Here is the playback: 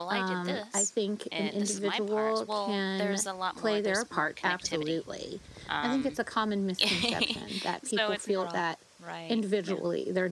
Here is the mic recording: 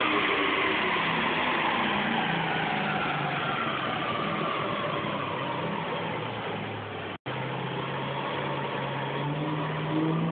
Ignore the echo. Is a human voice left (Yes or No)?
No